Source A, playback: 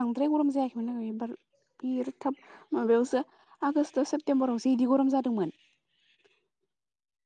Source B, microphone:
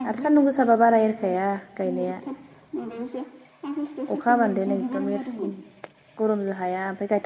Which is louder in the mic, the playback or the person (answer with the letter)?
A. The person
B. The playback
A